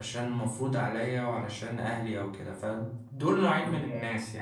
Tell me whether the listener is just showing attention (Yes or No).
Yes